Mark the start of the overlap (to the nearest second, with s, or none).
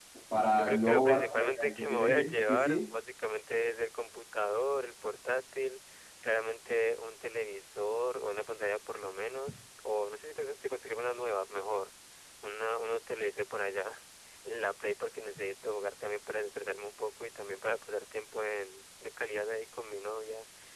1 s